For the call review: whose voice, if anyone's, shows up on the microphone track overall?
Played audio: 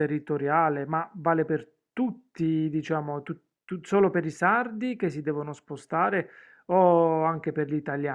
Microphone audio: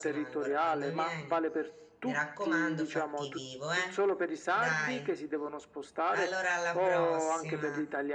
both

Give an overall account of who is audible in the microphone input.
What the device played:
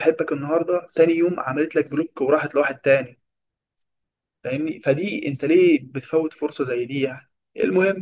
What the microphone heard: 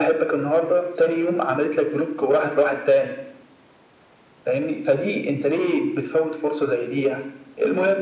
echo only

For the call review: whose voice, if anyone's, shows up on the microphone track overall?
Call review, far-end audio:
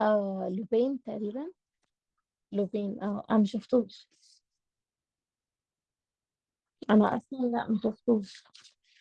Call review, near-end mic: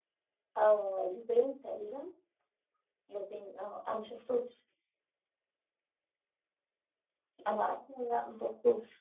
echo only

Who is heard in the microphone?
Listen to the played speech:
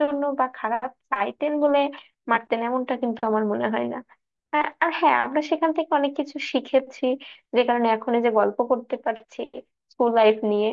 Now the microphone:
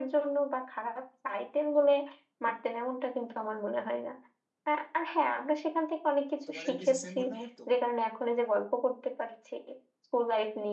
both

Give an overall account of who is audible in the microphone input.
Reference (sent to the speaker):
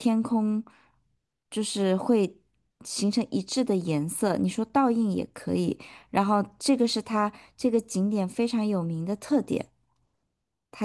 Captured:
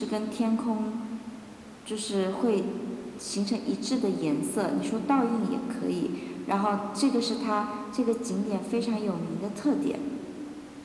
echo only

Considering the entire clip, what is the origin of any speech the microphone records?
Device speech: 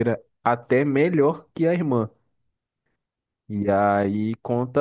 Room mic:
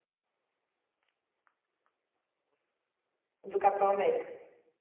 user only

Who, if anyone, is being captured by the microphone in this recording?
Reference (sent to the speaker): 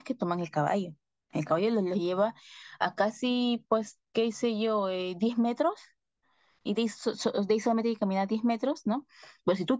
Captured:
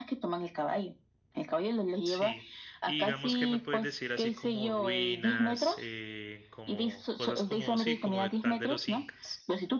both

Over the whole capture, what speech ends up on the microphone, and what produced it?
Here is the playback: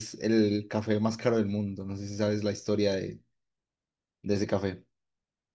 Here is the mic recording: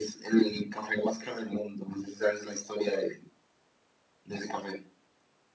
echo only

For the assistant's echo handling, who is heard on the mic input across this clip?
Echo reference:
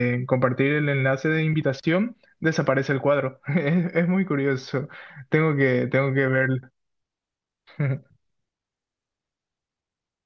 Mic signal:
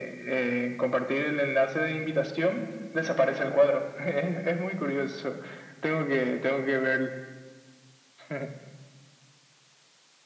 echo only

